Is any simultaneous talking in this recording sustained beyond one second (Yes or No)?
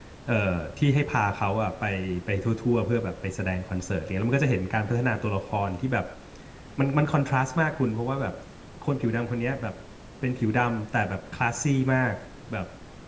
No